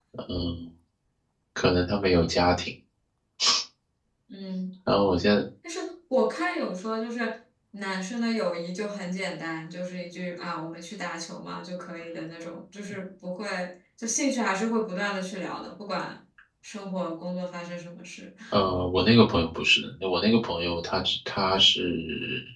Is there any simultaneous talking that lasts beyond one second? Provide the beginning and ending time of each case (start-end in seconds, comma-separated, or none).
none